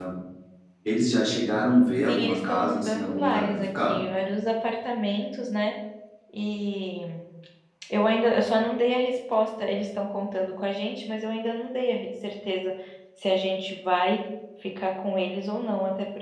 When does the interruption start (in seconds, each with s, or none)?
2.1 s